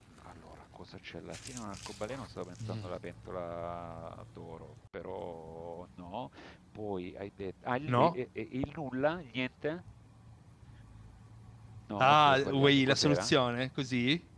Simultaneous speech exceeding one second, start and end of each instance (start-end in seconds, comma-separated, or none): 12.0-13.3